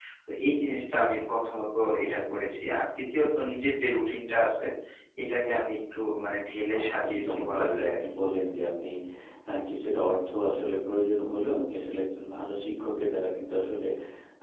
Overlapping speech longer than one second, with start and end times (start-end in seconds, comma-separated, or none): 6.7-8.0